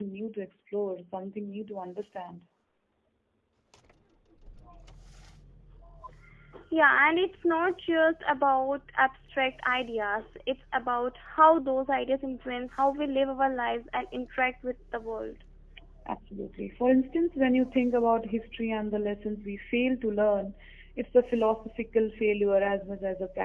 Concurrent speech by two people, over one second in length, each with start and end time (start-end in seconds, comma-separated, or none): none